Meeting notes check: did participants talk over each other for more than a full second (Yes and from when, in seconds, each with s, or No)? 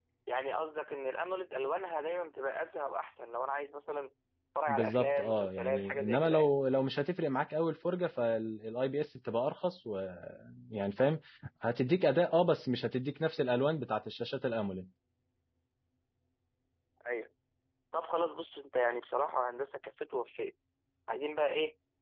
Yes, from 4.7 s